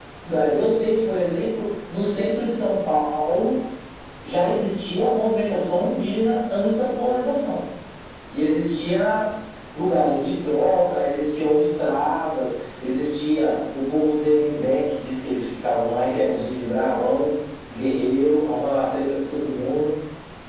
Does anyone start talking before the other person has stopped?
No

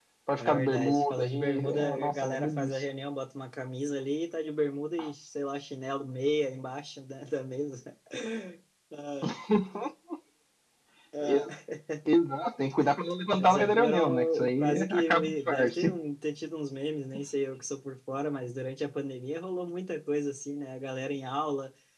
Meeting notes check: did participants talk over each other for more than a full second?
Yes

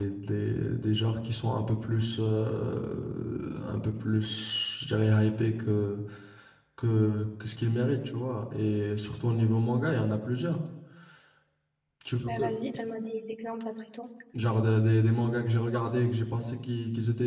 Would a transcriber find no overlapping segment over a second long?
Yes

